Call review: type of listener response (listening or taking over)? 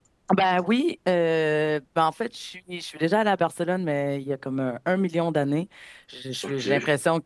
listening